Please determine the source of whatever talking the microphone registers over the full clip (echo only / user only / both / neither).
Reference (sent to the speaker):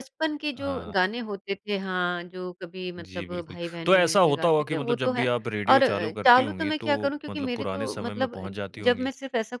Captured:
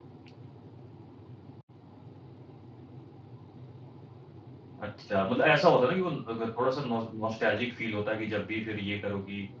user only